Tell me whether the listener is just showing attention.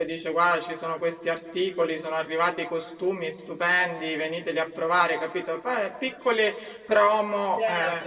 No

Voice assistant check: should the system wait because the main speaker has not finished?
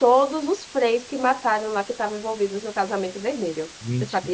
No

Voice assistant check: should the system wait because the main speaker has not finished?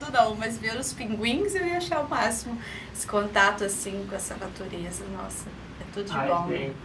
No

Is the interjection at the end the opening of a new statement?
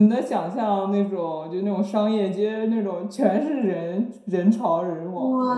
Yes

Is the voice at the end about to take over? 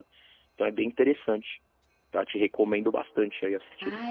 Yes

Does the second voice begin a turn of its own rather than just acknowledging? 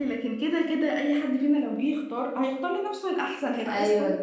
Yes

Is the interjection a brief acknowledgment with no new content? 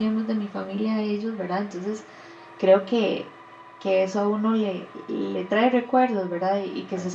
Yes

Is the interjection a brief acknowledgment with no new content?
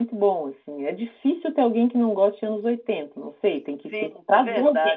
No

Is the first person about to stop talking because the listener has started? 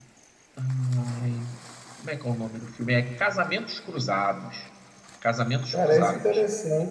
Yes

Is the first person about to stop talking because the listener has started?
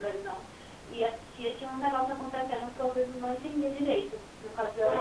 Yes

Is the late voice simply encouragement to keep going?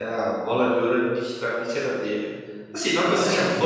Yes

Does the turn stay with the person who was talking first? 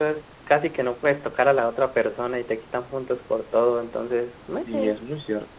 No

